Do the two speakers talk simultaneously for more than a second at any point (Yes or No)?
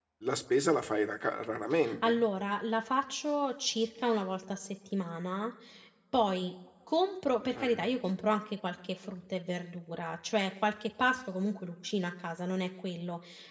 No